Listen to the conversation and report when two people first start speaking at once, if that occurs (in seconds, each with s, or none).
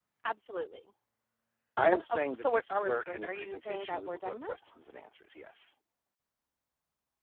2.1 s